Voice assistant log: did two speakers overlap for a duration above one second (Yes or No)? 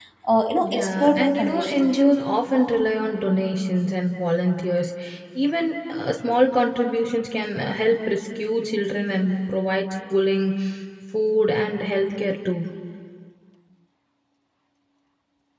Yes